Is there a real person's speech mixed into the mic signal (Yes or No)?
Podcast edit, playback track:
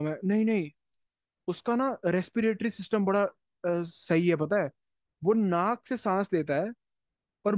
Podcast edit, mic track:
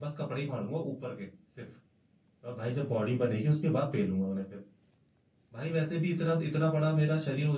Yes